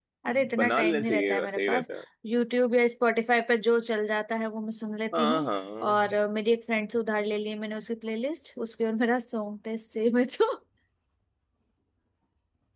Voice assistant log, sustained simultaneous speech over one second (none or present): present